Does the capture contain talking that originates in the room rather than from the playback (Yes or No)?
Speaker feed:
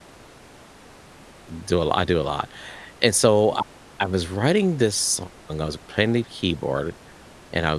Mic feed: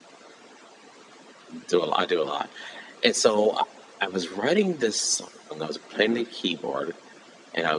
Yes